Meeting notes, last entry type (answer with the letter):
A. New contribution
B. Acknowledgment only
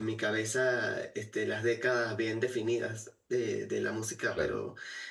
B